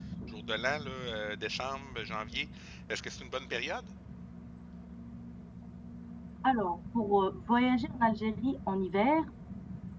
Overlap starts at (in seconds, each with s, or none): none